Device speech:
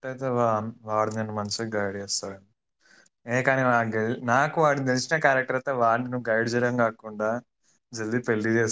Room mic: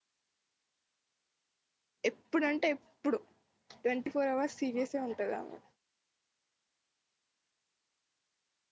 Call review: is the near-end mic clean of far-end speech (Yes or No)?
Yes